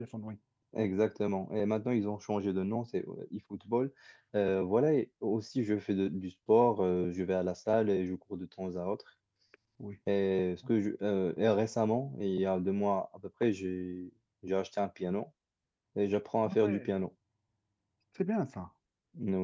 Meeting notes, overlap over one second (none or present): none